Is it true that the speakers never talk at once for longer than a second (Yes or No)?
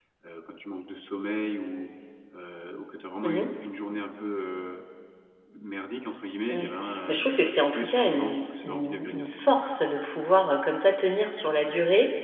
No